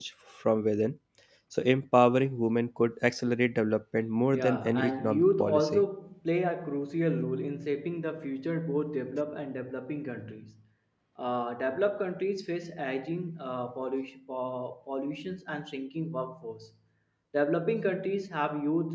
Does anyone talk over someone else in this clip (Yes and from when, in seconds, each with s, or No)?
Yes, from 4.3 s